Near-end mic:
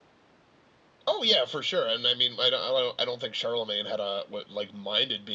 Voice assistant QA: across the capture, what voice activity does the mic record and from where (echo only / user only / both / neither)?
echo only